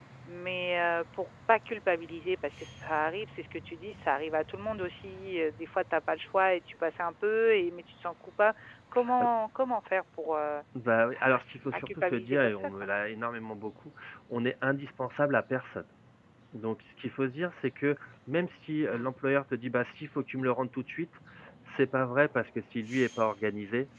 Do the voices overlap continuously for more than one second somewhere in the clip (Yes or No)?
Yes